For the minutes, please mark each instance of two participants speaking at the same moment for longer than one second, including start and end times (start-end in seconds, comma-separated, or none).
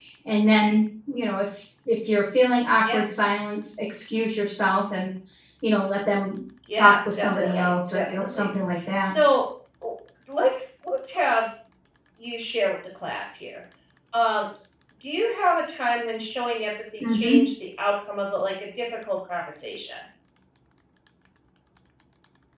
6.8-8.5